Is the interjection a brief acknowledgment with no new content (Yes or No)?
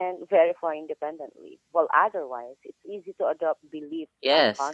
No